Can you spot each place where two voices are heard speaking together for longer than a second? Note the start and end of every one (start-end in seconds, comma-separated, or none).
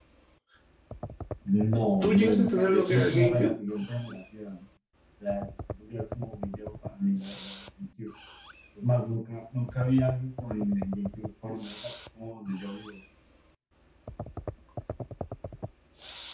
2.0-3.5